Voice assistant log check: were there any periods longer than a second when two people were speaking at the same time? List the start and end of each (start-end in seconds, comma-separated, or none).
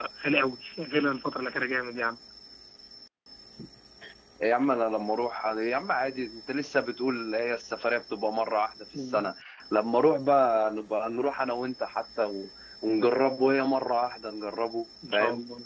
none